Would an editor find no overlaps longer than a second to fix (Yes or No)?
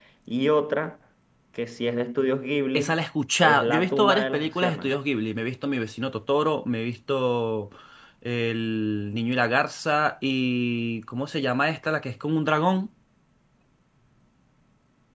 No